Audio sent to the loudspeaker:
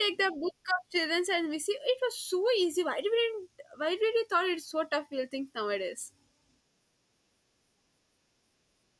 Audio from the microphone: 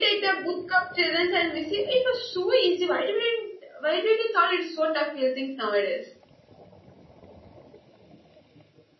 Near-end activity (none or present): none